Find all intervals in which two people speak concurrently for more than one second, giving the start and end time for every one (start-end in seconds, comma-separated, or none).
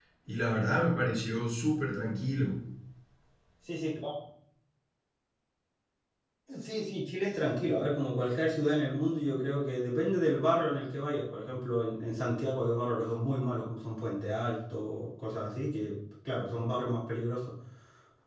none